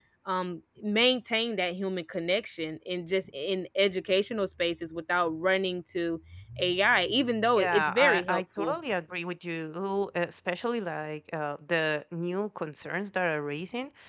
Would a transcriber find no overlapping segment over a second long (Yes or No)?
No